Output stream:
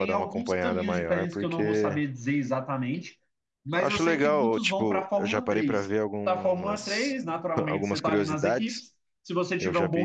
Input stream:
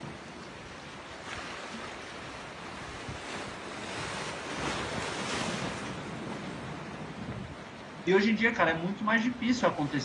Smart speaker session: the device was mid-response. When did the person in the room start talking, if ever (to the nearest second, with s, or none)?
8 s